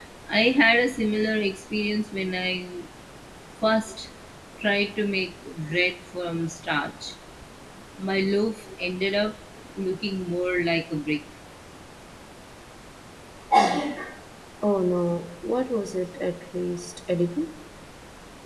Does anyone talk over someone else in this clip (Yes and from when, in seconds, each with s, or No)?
No